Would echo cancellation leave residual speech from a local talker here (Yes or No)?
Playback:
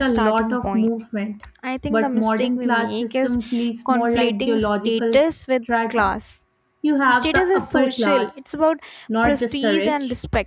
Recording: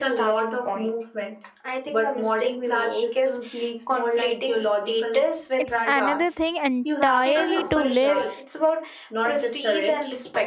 Yes